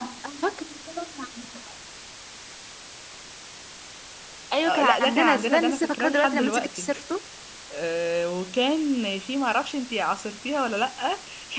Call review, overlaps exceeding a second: present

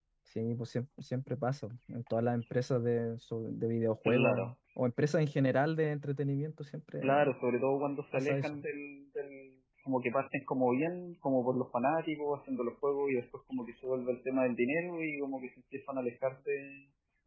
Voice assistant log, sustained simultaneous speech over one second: none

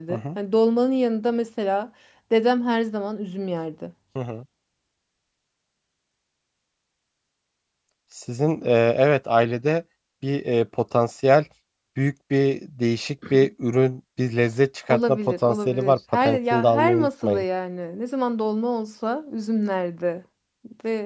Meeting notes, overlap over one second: present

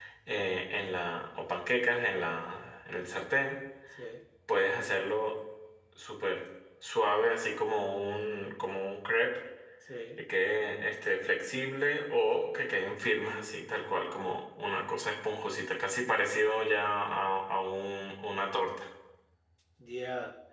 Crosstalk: none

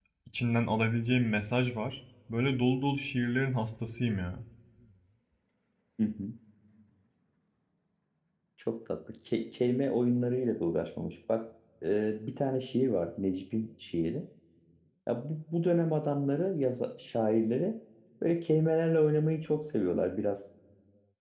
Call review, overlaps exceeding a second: none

